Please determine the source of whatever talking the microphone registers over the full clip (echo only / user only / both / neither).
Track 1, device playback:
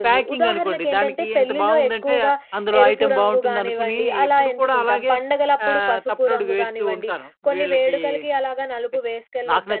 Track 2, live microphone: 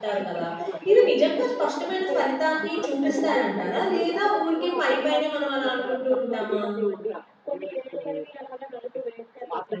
both